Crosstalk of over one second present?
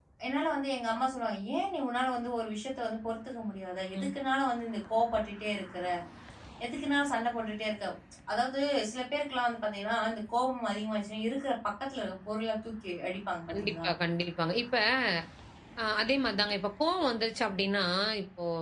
No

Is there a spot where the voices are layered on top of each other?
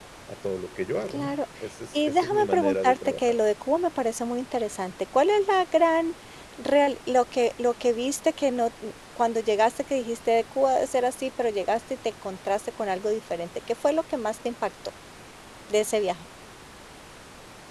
Yes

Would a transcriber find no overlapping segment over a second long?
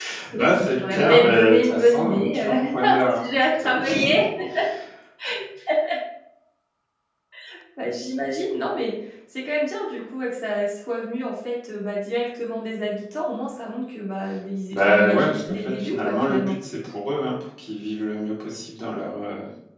No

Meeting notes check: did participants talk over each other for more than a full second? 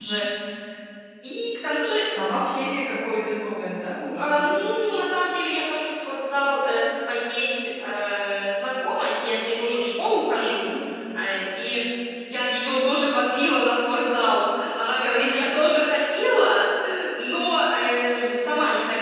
No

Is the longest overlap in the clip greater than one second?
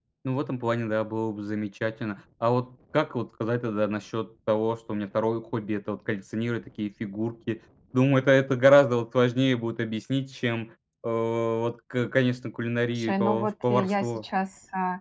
Yes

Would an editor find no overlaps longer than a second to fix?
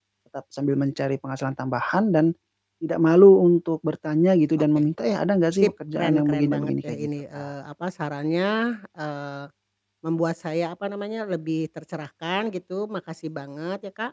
No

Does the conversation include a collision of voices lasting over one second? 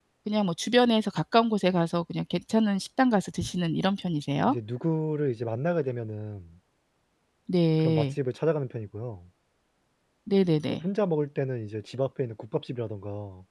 No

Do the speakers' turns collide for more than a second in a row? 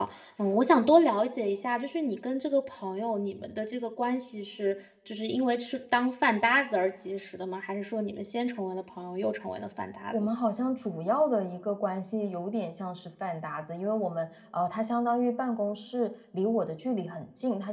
No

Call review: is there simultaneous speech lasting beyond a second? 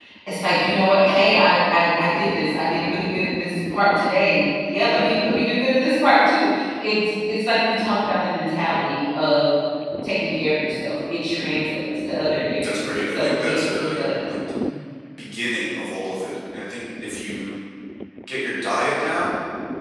Yes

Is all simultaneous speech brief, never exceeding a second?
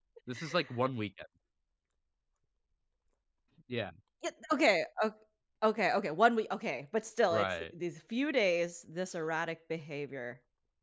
Yes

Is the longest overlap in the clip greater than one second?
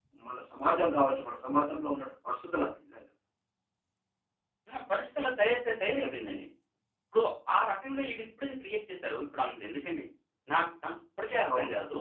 No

